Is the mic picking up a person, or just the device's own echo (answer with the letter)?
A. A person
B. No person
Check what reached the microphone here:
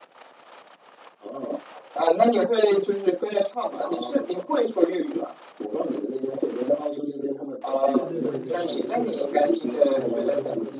A